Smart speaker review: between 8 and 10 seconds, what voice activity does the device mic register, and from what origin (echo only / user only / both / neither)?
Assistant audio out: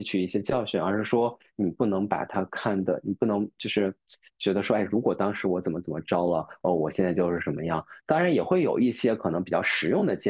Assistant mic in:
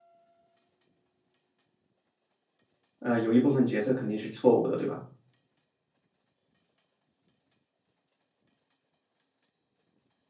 neither